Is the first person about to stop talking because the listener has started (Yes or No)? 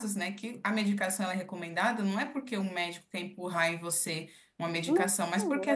No